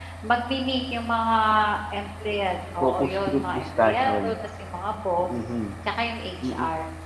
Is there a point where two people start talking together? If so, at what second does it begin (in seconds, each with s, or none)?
2.8 s